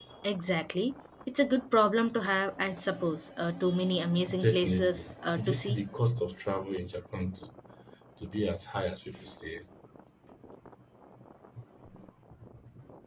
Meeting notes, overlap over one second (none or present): present